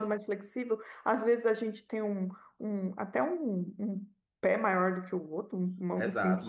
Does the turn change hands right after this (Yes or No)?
Yes